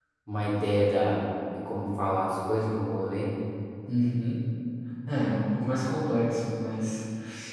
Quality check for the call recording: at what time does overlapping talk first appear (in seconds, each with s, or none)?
none